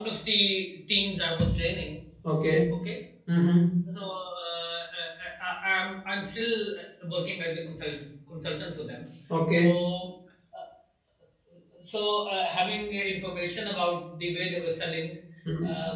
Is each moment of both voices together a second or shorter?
Yes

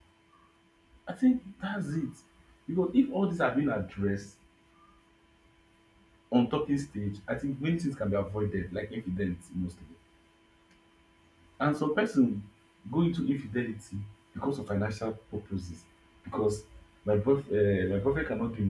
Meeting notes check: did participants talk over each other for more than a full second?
No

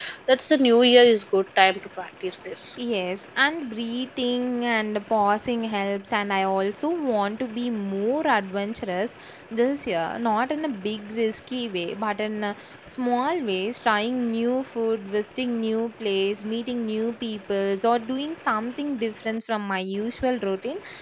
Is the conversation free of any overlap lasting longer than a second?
Yes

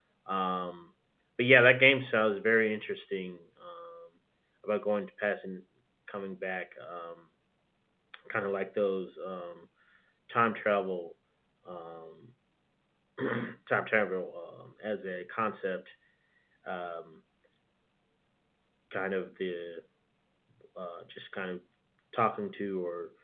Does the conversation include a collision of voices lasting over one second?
No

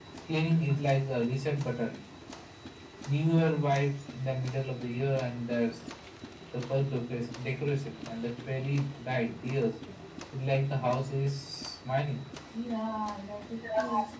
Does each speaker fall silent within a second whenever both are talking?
Yes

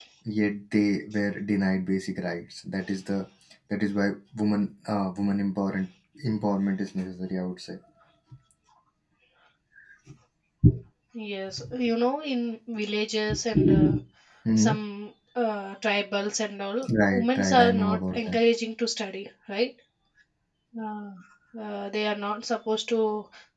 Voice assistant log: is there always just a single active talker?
No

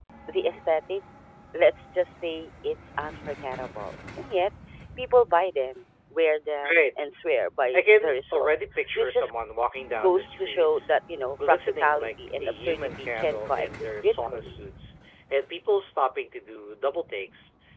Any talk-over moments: Yes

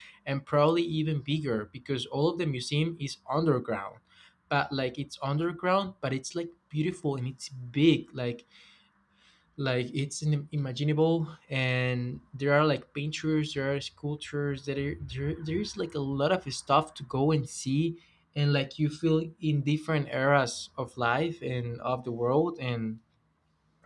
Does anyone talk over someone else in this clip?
No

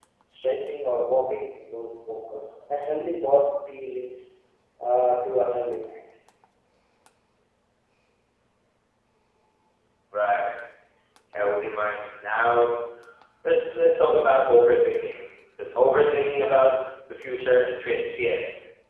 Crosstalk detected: No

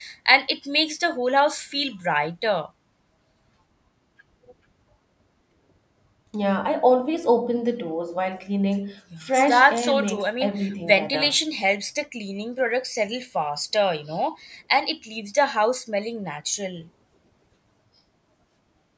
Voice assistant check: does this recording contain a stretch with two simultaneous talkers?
Yes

